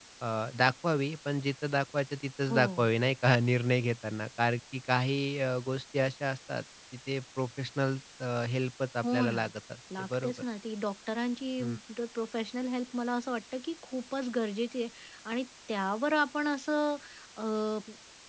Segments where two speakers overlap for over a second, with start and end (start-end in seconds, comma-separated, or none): none